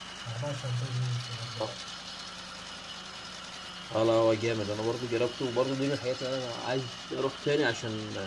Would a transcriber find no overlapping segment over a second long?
Yes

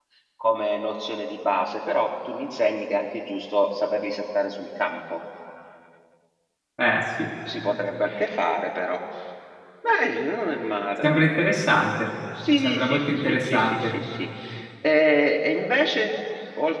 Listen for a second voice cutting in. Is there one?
Yes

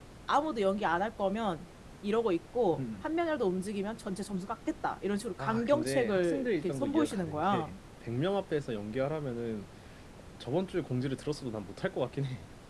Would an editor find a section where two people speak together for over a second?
Yes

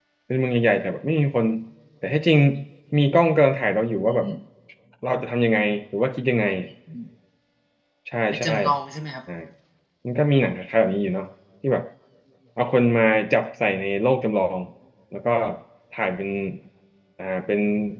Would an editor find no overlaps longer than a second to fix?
Yes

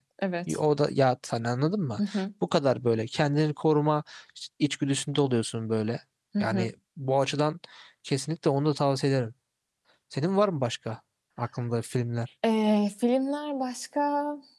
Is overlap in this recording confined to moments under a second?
Yes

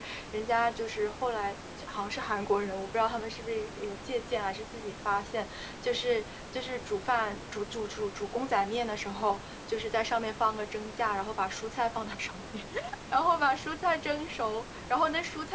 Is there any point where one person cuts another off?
No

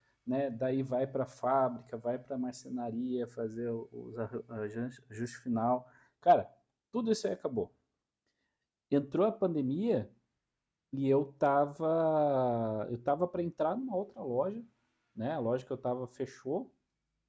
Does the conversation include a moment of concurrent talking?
No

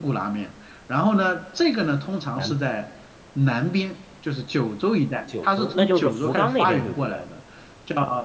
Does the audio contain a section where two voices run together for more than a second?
Yes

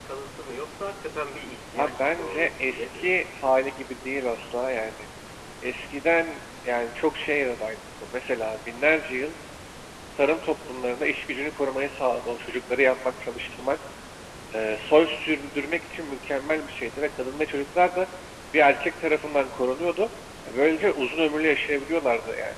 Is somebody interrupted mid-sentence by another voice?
Yes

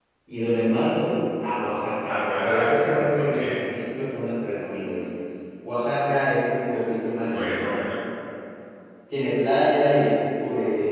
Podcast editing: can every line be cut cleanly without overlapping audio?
No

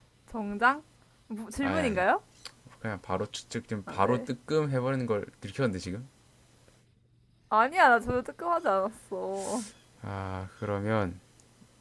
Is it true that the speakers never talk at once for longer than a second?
Yes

